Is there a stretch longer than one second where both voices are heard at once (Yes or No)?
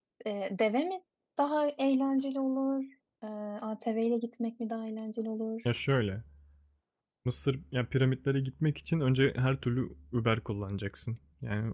No